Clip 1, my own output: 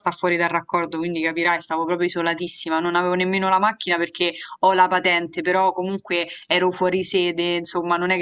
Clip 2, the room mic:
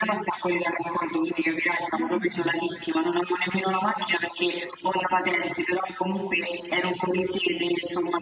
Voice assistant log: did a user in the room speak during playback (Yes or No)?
Yes